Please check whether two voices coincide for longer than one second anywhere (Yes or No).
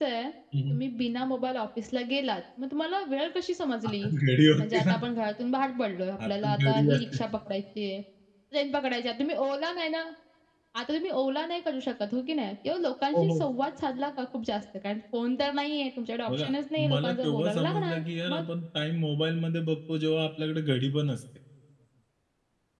Yes